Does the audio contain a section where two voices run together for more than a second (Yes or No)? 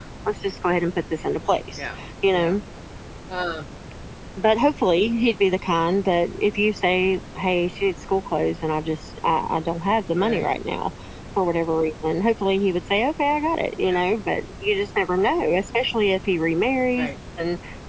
No